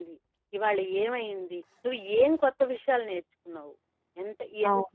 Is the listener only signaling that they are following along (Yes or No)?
Yes